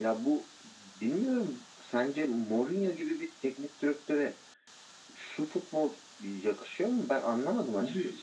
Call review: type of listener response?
taking over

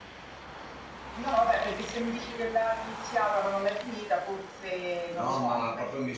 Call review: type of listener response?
taking over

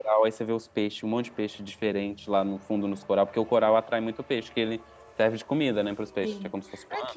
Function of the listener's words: taking over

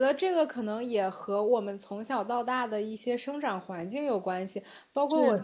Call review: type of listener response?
listening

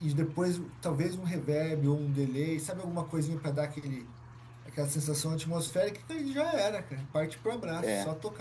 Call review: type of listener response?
listening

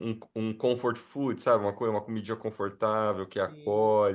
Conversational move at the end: taking over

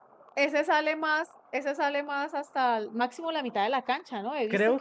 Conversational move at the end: taking over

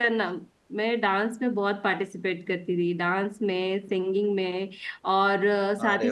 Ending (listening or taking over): listening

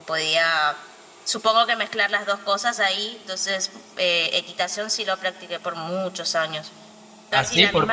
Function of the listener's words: taking over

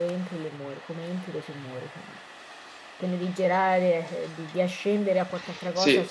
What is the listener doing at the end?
taking over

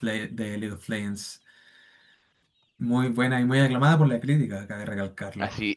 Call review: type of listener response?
taking over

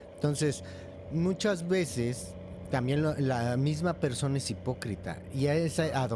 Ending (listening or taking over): listening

